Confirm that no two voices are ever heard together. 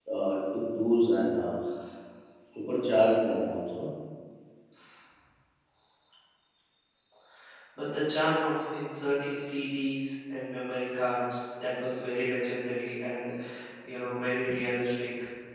Yes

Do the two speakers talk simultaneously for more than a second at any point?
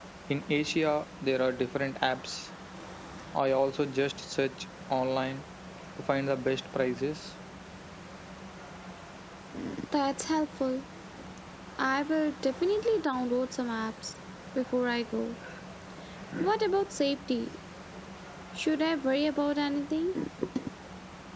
No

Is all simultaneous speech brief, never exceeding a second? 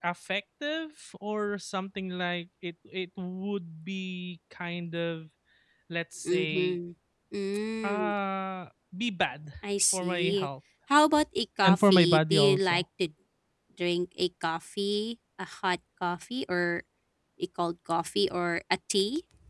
No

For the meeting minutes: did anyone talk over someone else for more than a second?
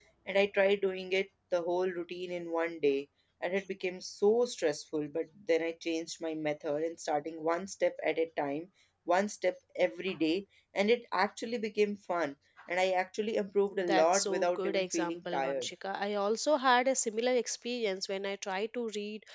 Yes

